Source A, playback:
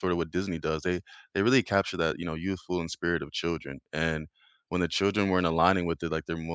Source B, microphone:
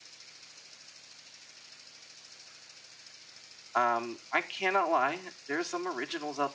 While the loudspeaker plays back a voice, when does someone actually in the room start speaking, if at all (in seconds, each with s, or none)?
3.7 s